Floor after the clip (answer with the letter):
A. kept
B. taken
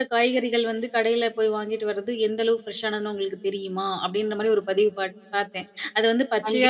A